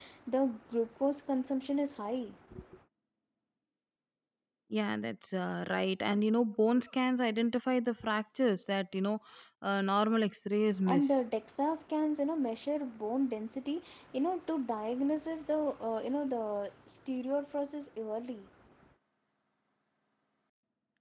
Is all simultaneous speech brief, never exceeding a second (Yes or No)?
Yes